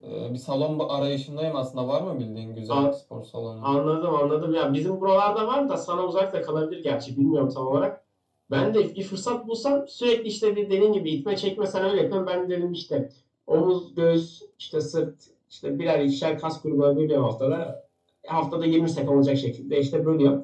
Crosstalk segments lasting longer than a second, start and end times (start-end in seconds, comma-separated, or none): none